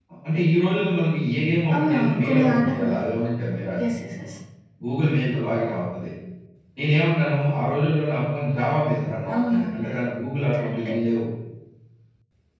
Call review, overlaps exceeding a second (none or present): present